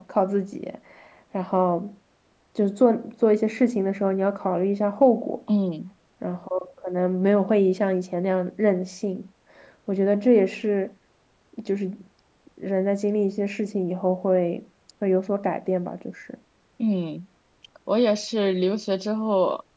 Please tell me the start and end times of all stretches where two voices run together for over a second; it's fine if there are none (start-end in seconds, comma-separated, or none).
none